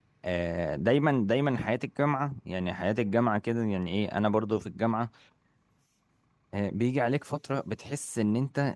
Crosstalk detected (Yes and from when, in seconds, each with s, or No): No